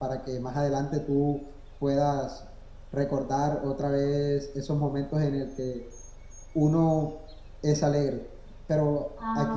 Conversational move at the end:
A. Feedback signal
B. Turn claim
A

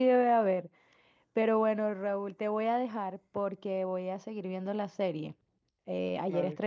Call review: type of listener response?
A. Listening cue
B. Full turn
A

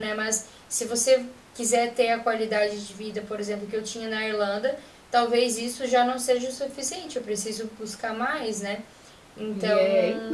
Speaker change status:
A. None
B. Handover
B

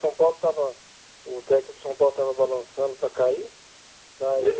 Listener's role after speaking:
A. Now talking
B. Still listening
B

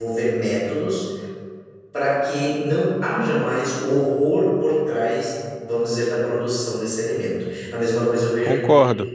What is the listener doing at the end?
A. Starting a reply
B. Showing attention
B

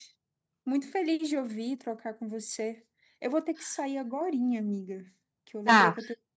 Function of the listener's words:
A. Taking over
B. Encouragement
B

